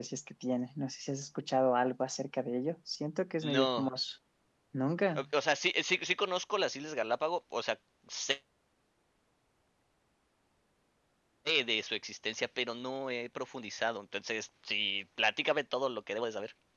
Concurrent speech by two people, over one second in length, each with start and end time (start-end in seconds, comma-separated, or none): none